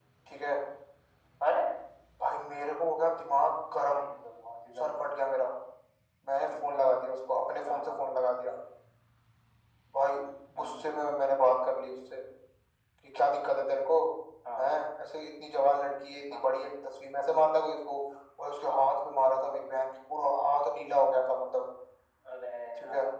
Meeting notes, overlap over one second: none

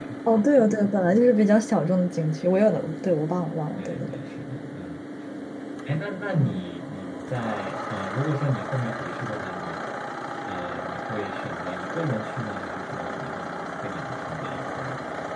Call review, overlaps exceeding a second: none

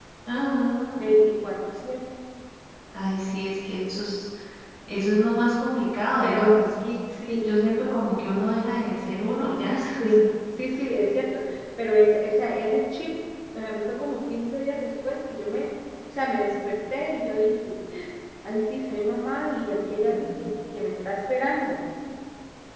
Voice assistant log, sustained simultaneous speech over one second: none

